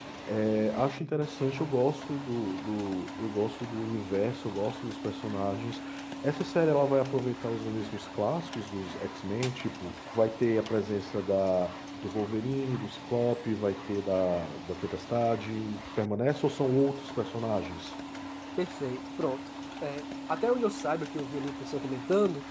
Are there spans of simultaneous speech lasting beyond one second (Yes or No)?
No